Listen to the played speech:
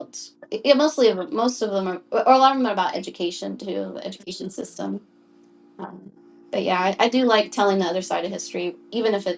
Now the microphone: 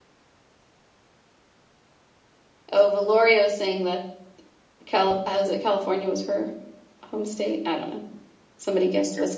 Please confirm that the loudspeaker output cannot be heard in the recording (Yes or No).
Yes